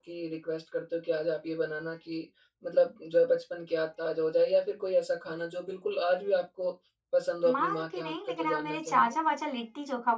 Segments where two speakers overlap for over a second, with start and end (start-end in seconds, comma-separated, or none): 7.5-9.1